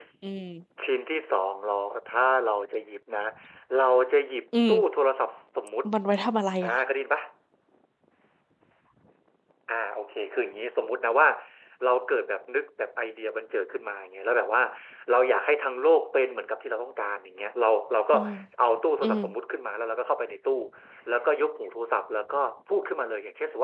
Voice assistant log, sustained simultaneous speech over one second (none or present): none